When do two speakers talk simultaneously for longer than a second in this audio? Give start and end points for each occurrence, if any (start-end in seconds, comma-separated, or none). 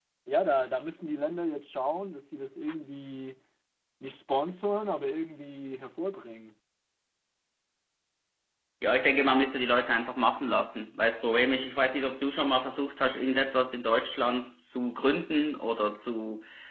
none